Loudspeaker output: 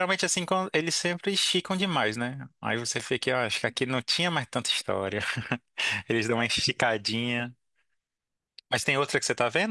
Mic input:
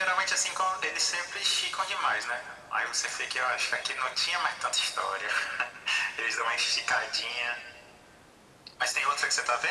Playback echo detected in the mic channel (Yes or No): Yes